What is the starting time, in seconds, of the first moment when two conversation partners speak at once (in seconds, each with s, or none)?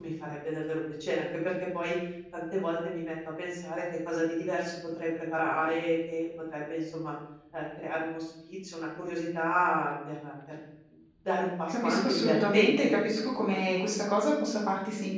11.7 s